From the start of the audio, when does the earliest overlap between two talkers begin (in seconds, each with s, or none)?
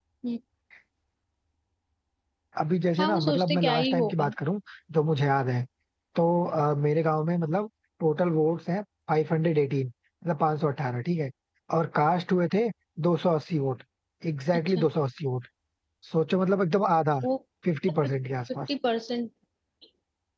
3.0 s